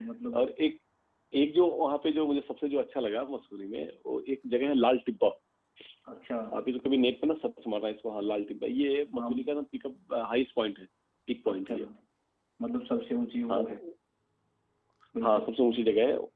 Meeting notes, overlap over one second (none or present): none